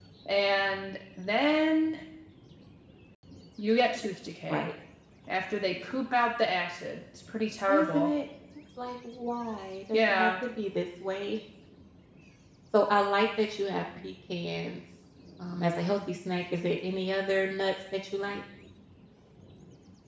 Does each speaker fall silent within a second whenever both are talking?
Yes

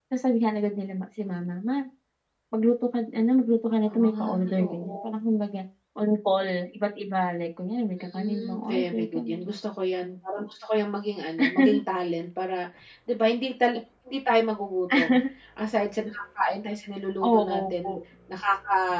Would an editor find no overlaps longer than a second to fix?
No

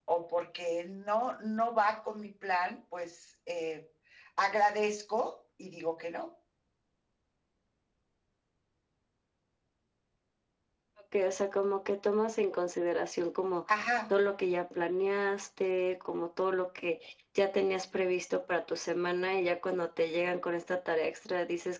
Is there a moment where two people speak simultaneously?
No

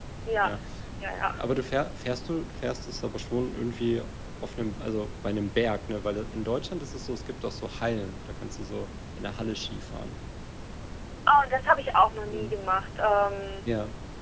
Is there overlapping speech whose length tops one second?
No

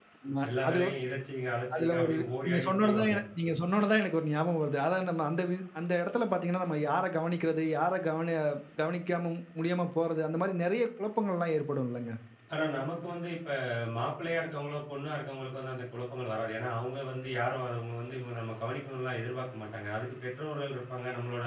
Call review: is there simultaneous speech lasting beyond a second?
Yes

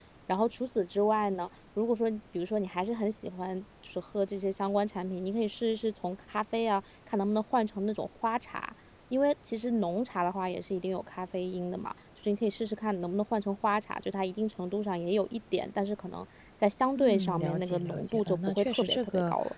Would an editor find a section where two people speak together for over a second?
Yes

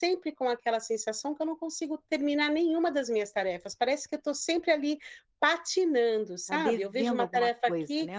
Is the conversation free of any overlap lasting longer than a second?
No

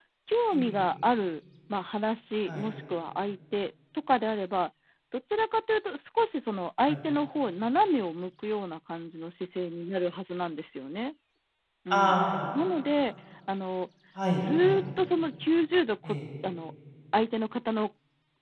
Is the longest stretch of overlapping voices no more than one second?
Yes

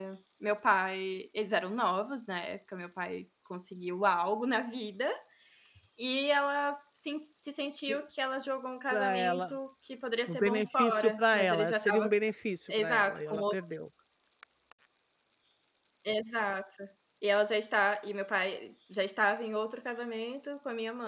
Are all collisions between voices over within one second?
No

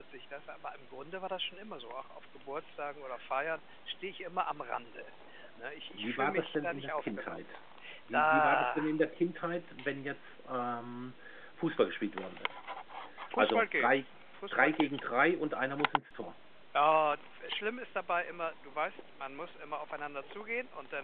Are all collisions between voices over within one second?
No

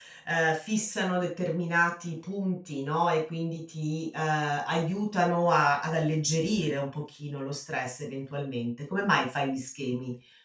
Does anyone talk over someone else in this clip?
No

